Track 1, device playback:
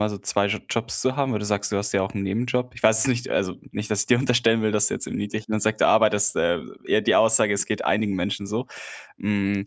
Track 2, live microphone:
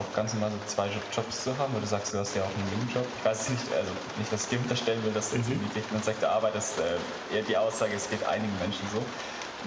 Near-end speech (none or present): present